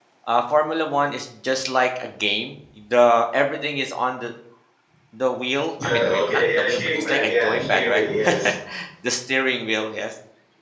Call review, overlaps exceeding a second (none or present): present